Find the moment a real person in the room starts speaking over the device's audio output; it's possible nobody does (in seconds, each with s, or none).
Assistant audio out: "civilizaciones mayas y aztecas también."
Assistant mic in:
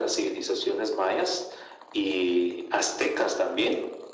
none